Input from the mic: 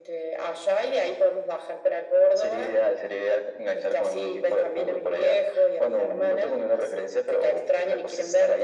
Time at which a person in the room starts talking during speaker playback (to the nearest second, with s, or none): none